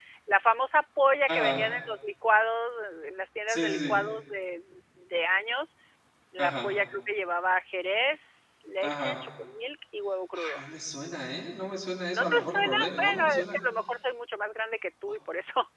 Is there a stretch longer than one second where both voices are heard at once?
Yes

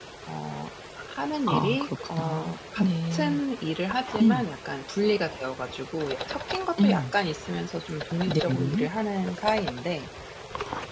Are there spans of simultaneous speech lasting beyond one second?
Yes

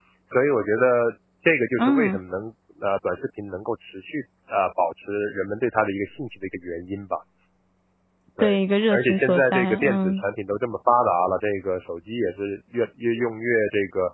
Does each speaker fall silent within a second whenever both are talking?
No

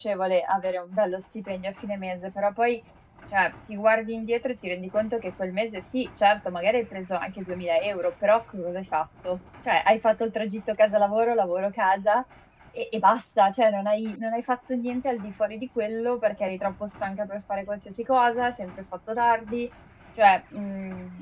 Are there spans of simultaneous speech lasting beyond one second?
No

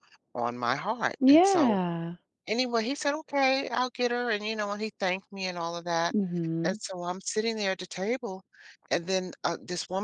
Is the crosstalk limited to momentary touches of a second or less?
Yes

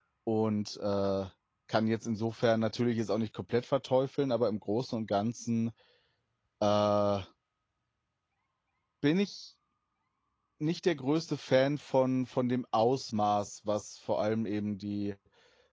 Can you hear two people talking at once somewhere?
No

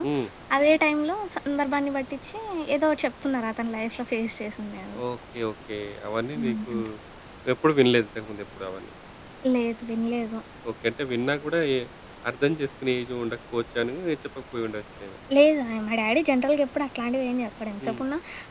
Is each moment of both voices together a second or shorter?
Yes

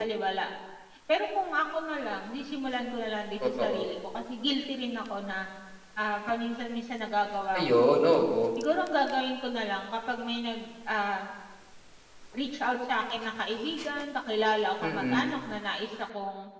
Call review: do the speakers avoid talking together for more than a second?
Yes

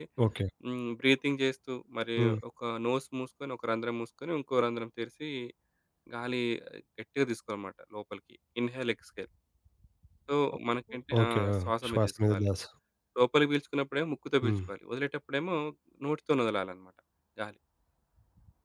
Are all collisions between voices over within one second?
No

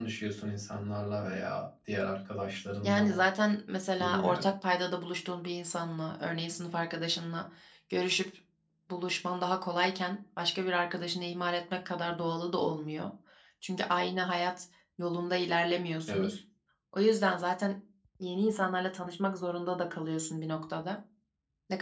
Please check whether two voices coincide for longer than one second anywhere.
No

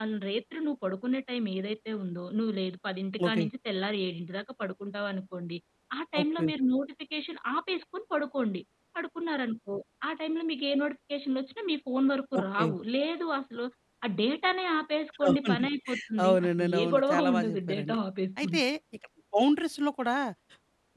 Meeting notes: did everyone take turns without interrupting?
No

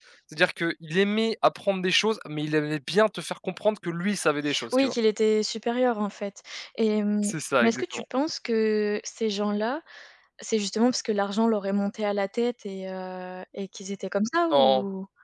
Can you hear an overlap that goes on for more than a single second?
No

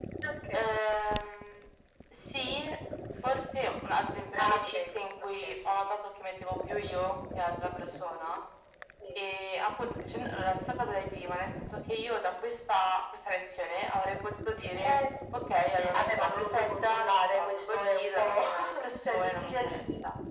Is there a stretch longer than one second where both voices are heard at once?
Yes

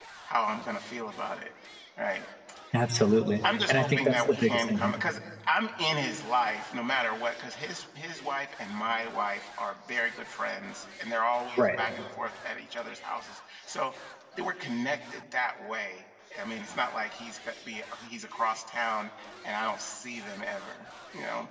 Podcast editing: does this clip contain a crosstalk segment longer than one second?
Yes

